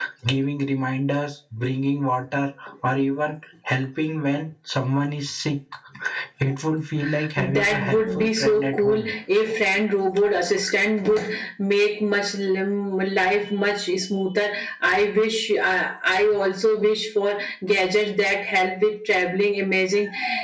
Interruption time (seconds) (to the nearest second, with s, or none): 7 s